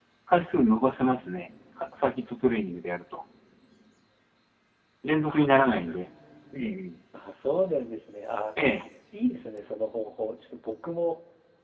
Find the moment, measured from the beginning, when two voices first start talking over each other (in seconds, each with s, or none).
none